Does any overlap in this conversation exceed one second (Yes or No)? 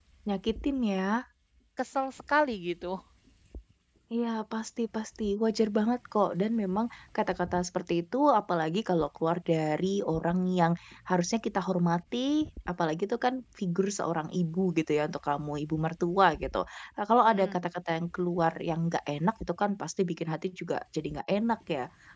No